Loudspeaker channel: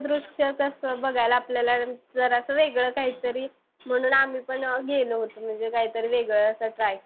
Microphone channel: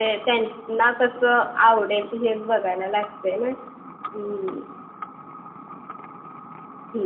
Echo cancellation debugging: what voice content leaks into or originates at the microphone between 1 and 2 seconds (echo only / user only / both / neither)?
user only